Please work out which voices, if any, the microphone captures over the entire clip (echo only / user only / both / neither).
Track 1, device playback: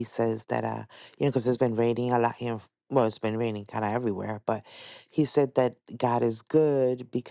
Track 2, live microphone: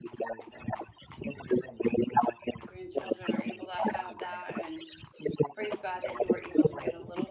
both